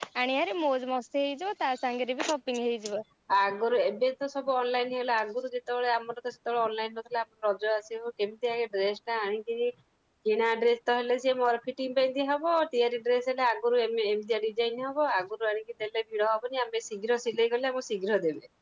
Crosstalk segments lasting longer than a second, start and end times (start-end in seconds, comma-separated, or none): none